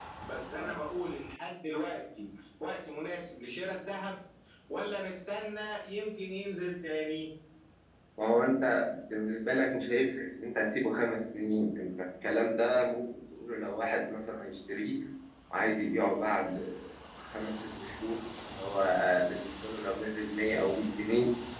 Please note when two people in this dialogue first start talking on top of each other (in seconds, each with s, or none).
none